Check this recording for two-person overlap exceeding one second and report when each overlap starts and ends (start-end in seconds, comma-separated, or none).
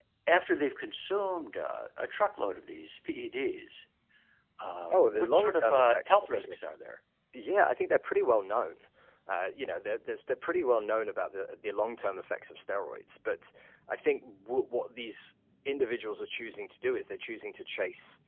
4.9-6.6